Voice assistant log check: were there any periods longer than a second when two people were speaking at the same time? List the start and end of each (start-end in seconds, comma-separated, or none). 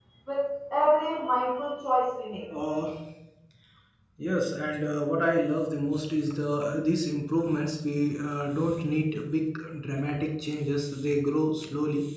none